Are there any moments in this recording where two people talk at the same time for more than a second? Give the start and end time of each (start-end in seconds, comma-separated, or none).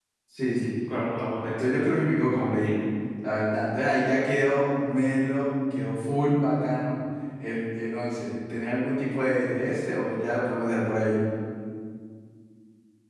1.4-2.8